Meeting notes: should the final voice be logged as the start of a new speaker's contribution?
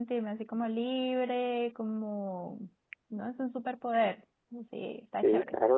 Yes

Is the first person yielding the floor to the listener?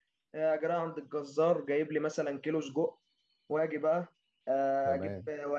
No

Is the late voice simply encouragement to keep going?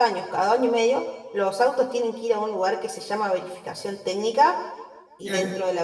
Yes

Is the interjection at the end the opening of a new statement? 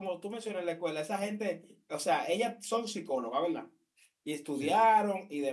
No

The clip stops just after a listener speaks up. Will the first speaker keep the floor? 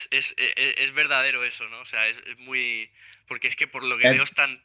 Yes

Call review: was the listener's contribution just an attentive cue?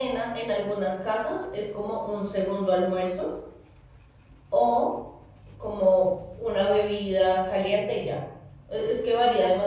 Yes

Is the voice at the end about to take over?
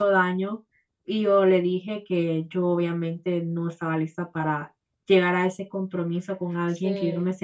No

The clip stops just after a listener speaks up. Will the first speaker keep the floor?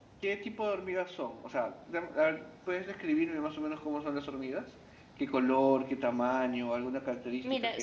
No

